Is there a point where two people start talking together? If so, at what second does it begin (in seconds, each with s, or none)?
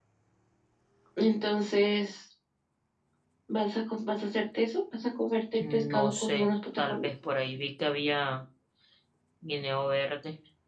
5.6 s